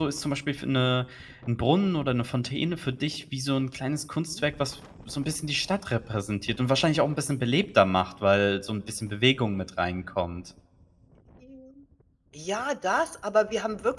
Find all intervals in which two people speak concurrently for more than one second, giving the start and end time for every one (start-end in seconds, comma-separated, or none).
none